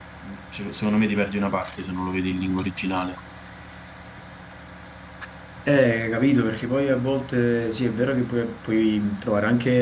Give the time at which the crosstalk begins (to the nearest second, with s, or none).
none